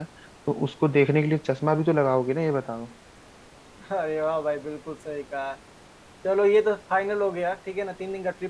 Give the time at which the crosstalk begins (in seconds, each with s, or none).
none